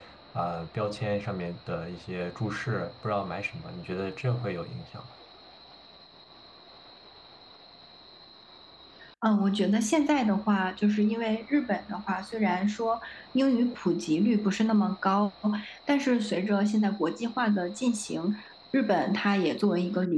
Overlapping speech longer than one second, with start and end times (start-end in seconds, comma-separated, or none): none